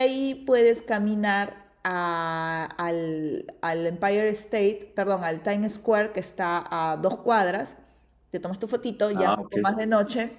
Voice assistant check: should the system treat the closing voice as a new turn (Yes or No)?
No